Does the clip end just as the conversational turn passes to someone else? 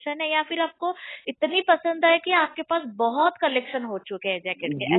Yes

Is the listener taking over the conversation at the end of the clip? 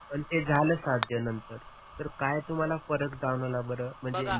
No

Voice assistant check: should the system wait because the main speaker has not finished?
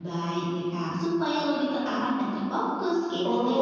No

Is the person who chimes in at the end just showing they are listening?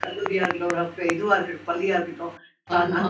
Yes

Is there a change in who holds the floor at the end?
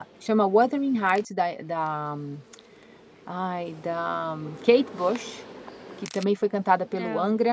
No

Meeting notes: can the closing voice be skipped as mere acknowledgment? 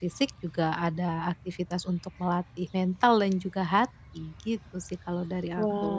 No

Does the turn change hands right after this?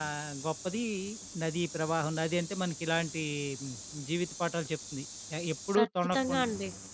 Yes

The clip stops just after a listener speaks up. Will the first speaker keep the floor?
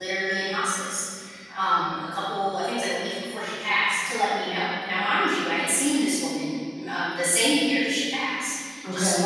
Yes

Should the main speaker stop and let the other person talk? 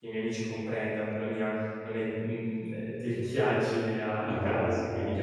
Yes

